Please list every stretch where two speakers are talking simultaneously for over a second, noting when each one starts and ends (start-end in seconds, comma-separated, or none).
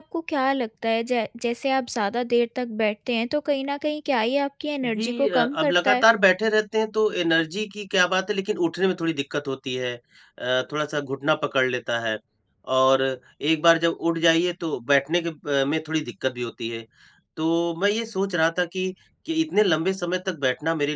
4.8-6.0